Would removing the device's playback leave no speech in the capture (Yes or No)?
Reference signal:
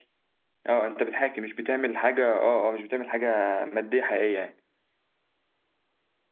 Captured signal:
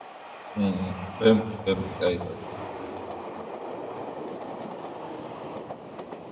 No